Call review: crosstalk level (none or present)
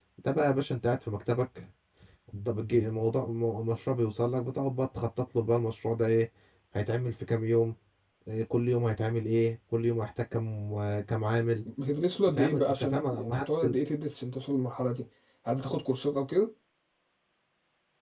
present